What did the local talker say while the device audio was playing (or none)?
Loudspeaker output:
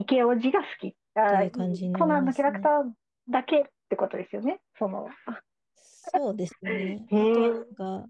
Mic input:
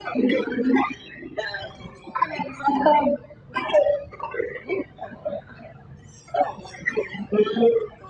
none